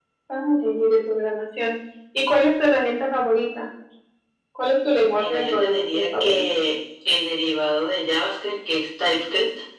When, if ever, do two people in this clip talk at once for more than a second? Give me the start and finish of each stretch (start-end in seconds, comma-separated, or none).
5.2-6.5